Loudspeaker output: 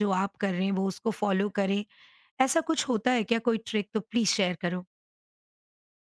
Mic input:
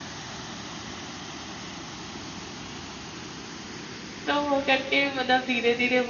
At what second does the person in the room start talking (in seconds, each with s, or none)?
4.3 s